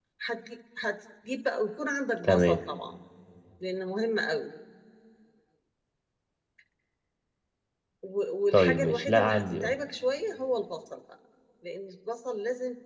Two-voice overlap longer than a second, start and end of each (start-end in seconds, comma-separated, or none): 8.5-9.7